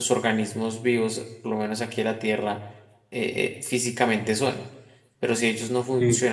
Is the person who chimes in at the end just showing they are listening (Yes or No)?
Yes